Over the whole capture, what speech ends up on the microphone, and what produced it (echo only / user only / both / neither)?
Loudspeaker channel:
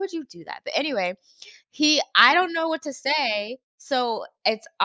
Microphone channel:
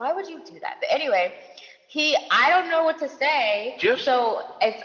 both